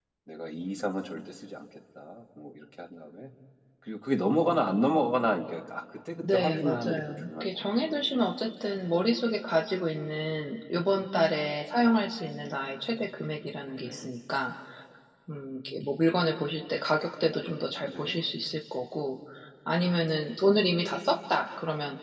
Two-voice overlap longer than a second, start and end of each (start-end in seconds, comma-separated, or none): 6.2-8.0